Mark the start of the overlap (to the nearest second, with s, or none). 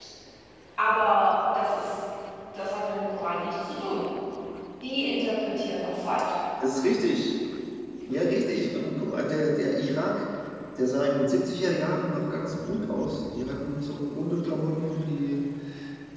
none